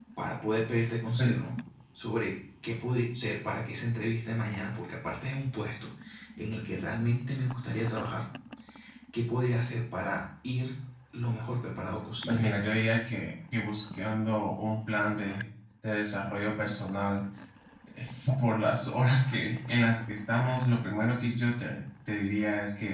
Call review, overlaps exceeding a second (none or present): none